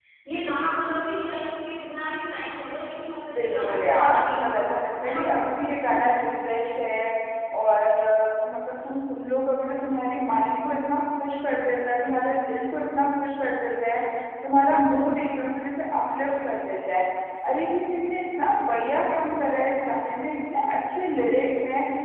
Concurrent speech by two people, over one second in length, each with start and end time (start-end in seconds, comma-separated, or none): 3.3-4.6